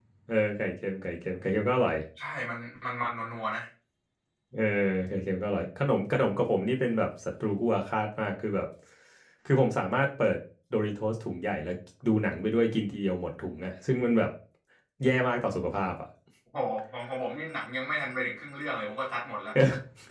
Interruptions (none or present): none